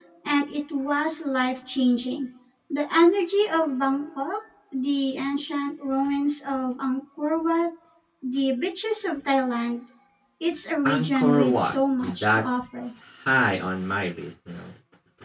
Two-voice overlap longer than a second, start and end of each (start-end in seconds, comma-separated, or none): 10.8-12.4